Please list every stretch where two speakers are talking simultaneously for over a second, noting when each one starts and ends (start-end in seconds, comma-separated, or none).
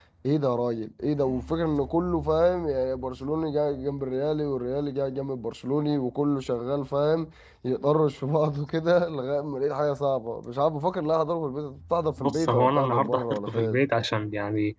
12.2-13.8